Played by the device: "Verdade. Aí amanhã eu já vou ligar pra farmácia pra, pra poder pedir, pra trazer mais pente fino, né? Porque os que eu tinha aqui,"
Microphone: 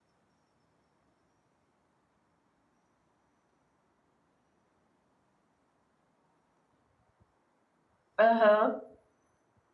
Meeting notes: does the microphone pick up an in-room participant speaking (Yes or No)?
Yes